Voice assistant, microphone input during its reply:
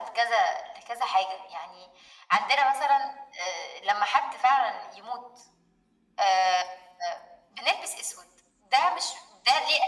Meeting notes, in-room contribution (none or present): none